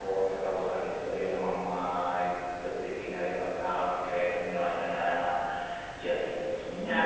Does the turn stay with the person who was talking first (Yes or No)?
No